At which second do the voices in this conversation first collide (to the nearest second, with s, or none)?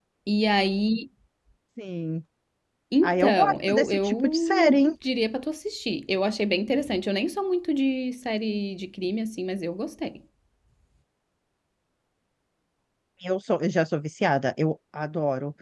3 s